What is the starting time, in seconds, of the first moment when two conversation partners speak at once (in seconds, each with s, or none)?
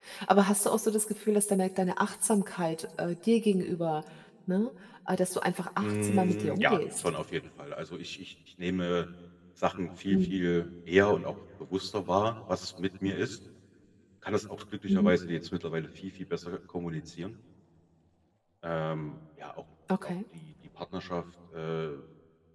5.8 s